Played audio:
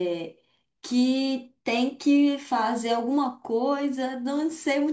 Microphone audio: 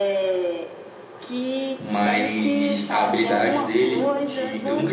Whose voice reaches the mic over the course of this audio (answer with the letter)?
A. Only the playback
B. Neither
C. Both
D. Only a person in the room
C